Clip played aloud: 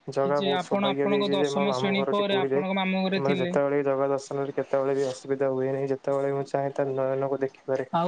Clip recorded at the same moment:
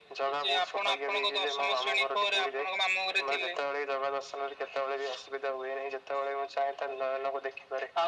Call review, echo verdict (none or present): present